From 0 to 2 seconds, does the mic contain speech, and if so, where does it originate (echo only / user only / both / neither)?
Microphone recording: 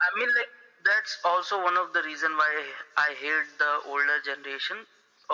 echo only